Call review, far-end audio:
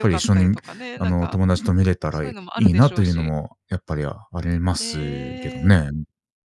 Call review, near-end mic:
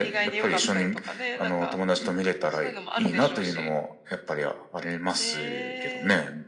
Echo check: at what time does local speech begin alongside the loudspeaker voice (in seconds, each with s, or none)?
none